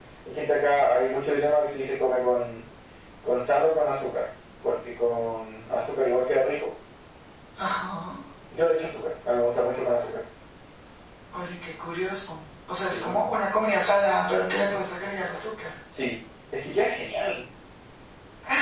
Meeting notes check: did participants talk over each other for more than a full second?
No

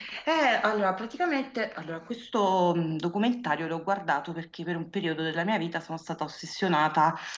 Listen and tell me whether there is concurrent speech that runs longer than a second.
No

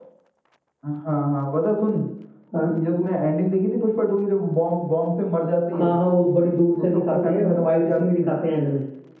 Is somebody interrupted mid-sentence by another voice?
Yes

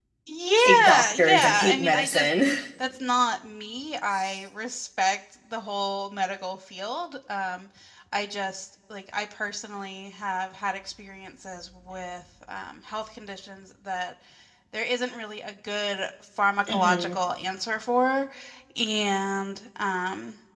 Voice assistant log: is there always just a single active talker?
No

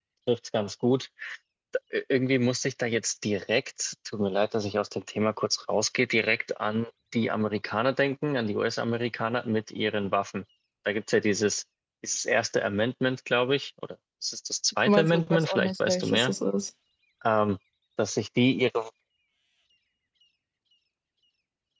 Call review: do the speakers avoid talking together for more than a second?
No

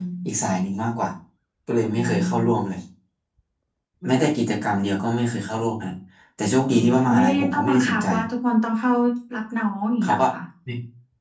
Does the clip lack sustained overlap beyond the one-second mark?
No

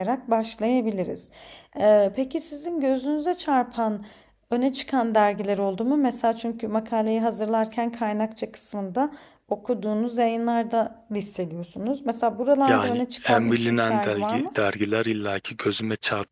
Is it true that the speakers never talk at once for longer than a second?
No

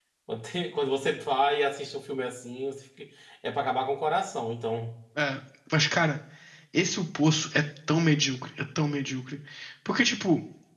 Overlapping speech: No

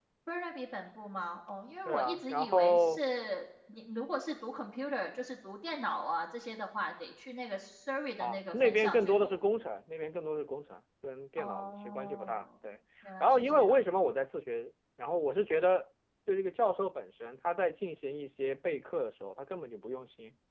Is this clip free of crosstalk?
No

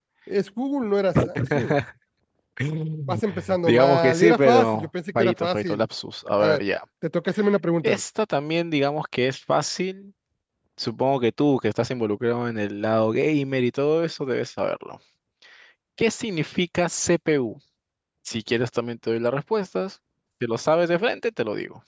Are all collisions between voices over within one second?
No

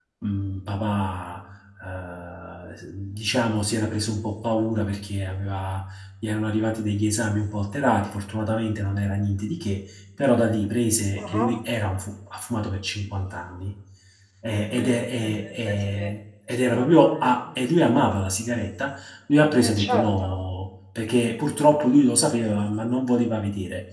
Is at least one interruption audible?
Yes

